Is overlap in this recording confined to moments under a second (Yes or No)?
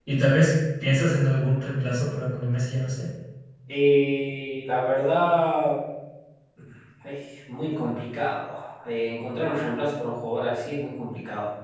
Yes